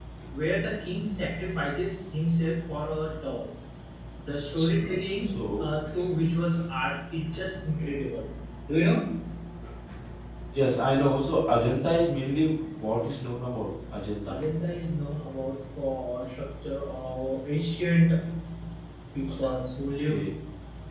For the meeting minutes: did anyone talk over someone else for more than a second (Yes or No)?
No